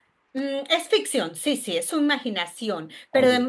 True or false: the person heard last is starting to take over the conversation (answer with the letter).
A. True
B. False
B